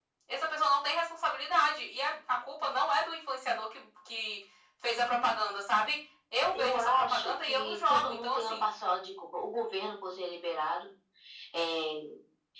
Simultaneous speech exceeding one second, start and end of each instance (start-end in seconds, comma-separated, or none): 6.5-8.7